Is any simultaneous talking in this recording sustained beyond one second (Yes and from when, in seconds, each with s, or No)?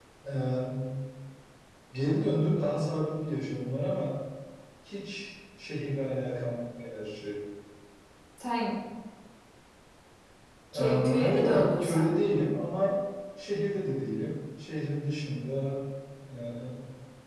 Yes, from 10.7 s